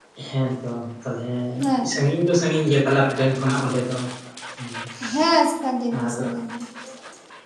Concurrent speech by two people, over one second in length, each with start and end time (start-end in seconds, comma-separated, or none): none